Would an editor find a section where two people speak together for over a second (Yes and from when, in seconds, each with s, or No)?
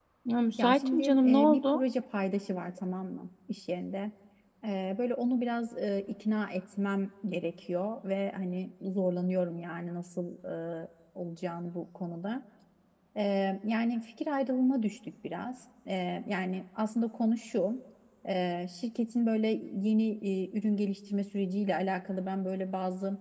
Yes, from 0.6 s